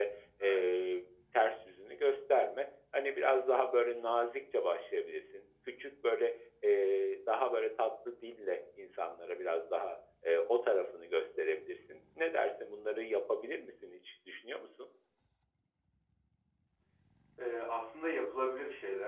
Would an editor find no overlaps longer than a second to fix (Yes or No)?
Yes